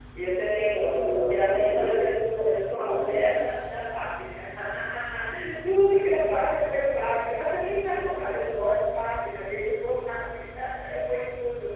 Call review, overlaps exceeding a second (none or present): present